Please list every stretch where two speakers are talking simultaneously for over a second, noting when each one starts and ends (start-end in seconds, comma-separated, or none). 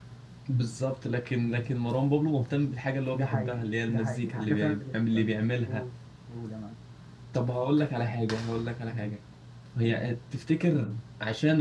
3.1-5.2